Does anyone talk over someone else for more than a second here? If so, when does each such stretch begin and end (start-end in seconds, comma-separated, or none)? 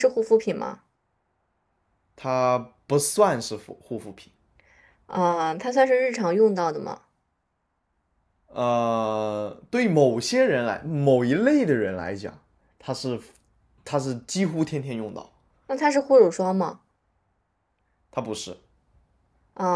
none